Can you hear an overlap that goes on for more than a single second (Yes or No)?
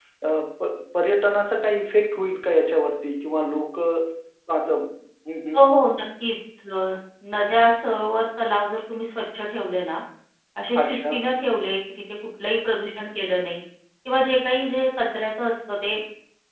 No